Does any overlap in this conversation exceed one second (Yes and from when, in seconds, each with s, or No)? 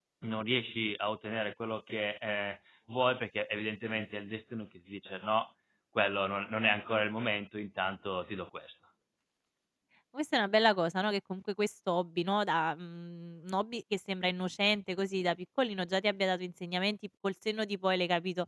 No